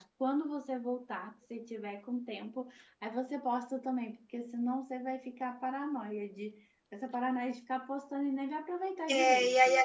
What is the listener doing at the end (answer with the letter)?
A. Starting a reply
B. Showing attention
A